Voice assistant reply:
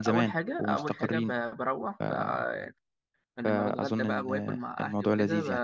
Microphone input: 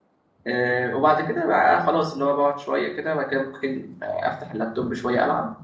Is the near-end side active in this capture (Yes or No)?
Yes